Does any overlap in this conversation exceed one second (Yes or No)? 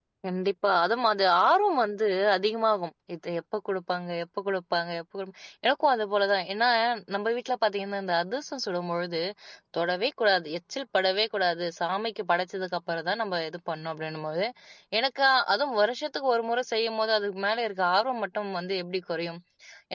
No